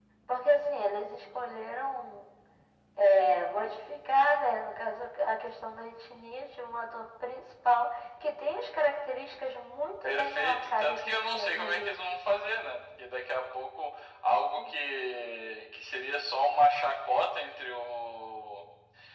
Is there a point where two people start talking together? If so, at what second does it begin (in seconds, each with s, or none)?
10.0 s